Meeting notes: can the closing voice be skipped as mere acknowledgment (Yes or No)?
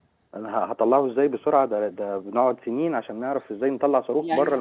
No